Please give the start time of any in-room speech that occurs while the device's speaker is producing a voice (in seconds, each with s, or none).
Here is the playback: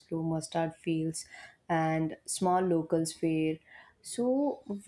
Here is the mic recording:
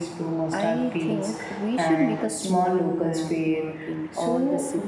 0.5 s